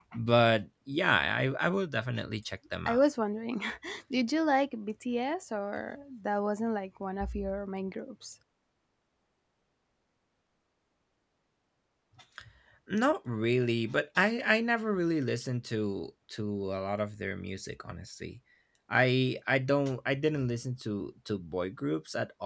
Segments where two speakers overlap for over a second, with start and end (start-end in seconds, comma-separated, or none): none